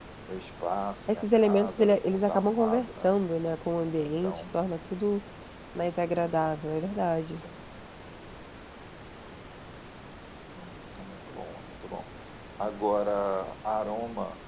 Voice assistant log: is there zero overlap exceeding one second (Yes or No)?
No